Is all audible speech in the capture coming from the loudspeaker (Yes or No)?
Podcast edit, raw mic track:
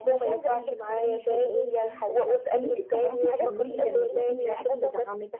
No